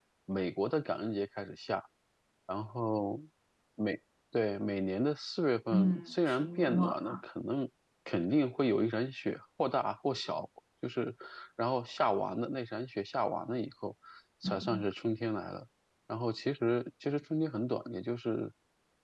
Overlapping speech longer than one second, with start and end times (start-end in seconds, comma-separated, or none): 5.7-7.2